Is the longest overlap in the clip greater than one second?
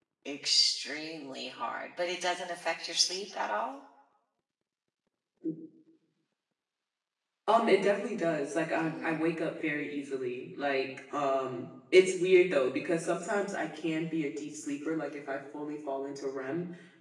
No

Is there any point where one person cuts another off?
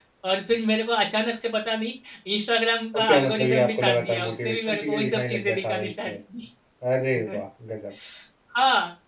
Yes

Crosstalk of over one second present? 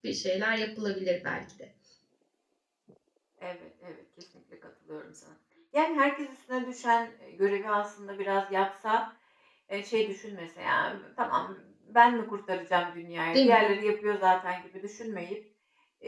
No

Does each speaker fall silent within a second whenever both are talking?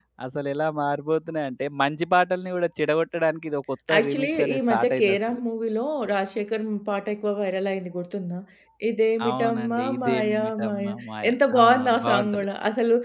No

